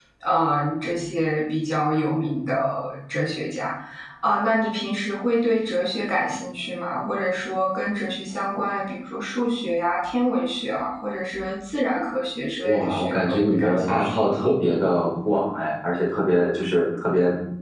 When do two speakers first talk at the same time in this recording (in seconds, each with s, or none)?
12.6 s